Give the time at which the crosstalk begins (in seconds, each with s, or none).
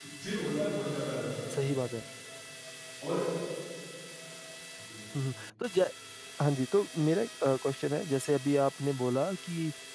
none